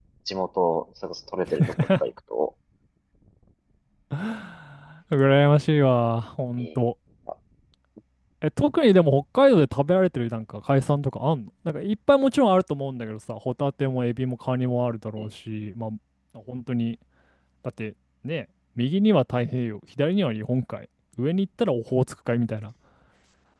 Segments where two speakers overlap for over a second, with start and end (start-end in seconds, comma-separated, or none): none